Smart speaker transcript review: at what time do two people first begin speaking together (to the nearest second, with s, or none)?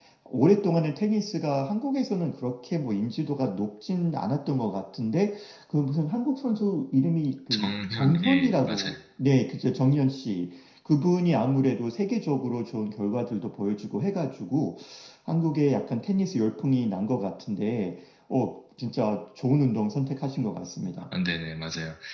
8 s